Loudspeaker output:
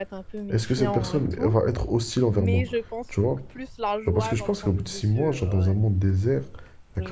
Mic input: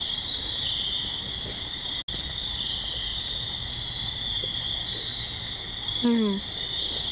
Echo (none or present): none